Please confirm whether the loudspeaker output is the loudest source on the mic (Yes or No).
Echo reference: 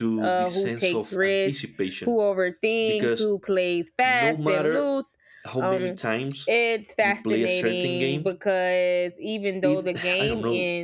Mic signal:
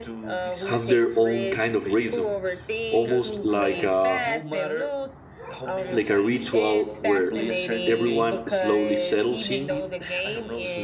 No